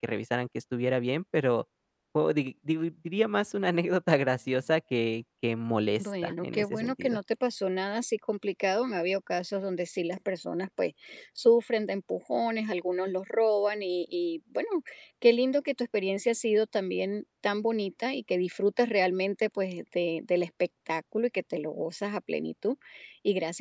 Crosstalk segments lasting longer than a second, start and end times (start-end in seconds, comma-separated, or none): 6.0-7.2